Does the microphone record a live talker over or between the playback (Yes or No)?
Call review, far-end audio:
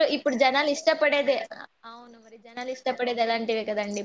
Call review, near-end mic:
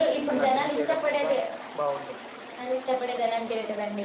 Yes